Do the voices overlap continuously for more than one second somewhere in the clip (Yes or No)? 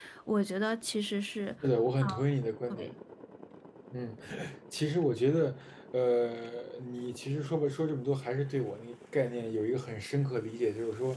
No